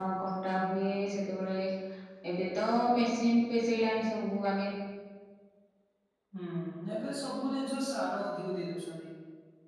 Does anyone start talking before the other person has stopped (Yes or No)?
No